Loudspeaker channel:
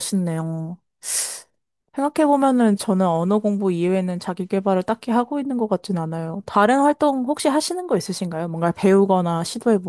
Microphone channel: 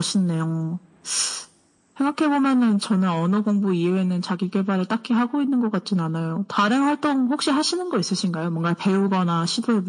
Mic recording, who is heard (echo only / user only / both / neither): echo only